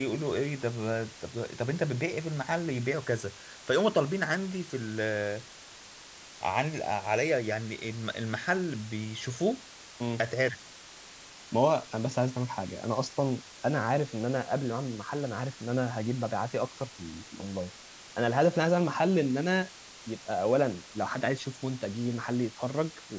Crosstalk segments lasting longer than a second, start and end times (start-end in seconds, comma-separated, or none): none